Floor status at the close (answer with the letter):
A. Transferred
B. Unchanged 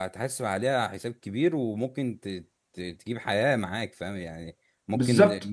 B